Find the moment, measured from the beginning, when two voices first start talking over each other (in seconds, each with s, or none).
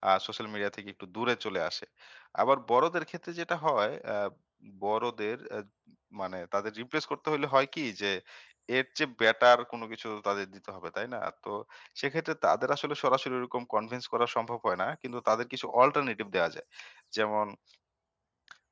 none